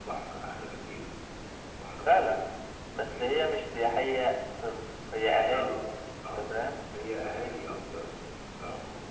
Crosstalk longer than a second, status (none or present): none